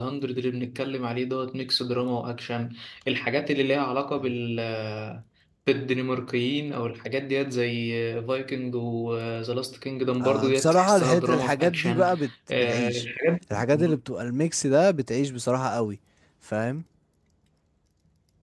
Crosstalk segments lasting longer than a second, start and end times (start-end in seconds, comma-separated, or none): 10.2-12.1